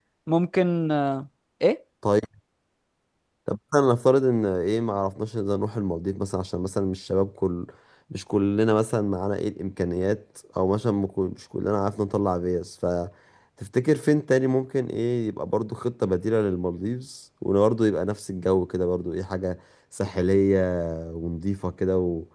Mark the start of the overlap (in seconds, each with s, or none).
none